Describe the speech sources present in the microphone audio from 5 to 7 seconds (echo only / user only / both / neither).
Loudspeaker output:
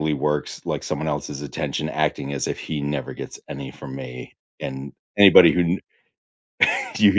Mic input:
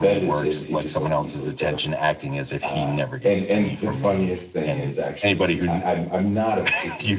both